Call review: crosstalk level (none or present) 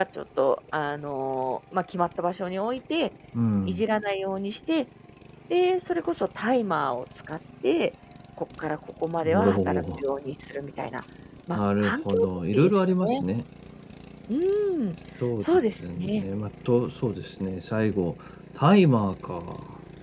present